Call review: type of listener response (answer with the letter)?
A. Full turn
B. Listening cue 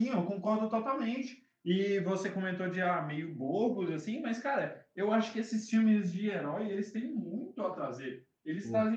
B